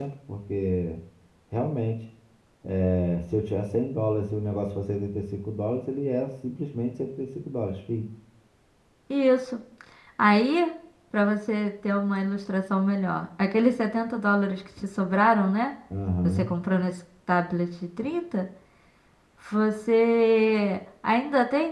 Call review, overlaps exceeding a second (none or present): none